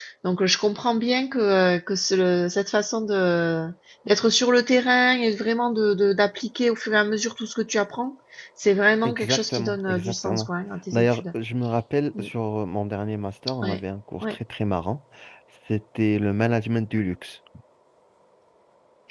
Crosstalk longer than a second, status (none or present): present